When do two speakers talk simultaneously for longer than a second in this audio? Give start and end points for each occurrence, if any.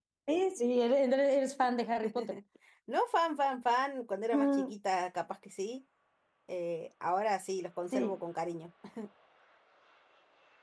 none

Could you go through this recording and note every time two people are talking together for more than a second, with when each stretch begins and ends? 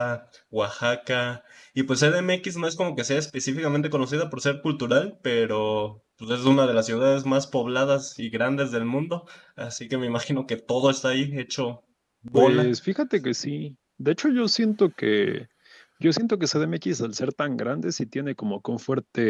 none

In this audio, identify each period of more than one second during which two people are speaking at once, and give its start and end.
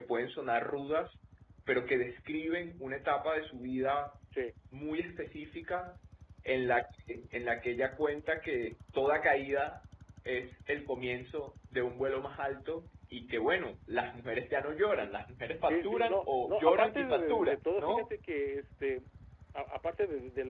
15.7-18.1

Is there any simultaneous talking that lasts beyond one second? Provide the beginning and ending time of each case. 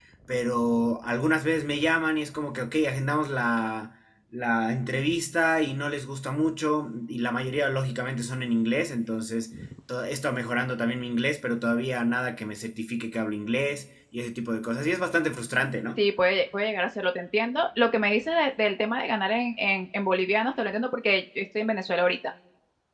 none

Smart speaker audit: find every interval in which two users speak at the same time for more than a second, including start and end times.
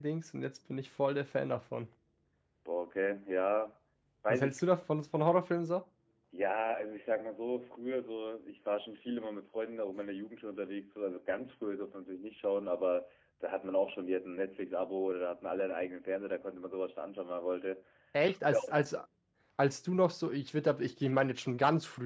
none

